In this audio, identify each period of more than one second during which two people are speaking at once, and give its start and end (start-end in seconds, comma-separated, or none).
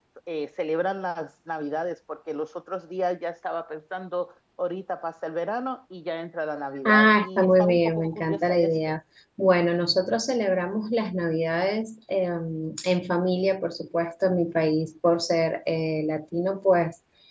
6.8-8.9